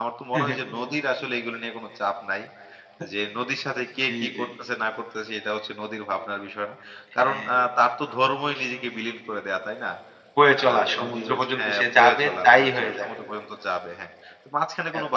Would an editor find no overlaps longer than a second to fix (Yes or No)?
No